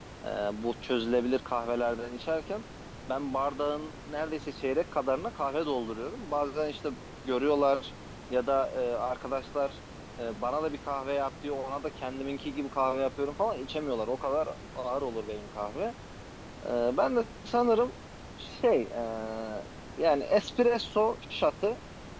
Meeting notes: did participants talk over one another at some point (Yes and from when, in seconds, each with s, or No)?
No